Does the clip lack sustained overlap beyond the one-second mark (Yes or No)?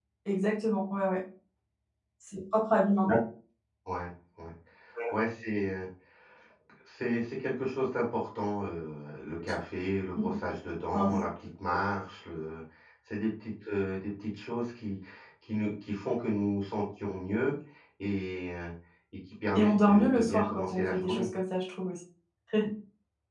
No